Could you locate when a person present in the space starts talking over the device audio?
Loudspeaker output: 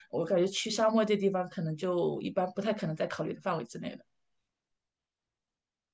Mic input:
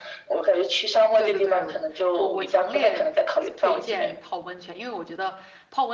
1.1 s

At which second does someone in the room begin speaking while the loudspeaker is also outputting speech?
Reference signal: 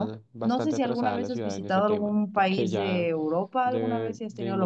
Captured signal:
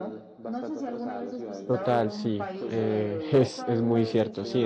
1.6 s

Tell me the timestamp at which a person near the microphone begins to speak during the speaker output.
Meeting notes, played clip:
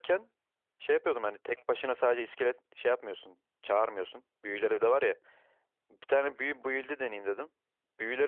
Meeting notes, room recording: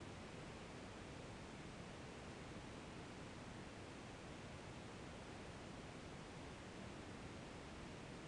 none

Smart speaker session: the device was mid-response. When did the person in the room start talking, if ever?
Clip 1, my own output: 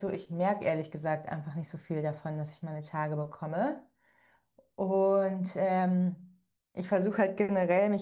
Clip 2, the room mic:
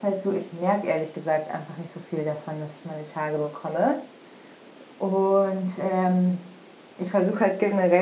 none

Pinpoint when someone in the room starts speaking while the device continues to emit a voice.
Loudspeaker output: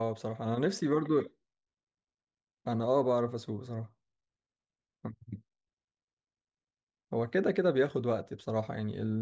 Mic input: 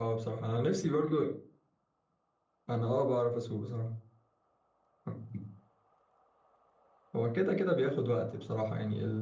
none

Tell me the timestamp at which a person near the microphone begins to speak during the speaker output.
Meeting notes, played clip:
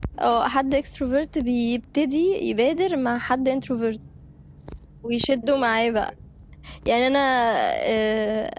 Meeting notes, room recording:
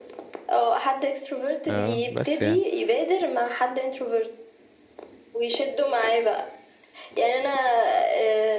1.7 s

